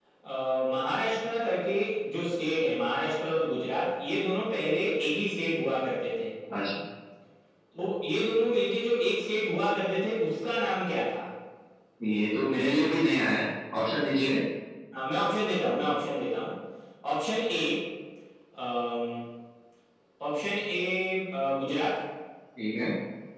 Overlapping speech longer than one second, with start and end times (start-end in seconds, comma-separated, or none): none